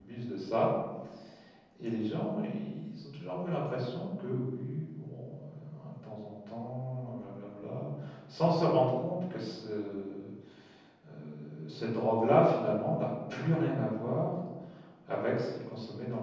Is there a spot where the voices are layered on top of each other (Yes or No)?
No